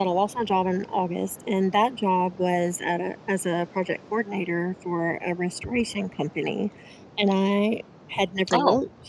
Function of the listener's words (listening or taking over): listening